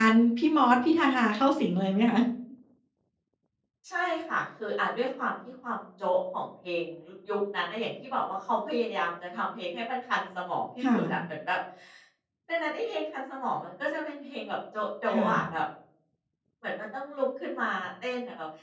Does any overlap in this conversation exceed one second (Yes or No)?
No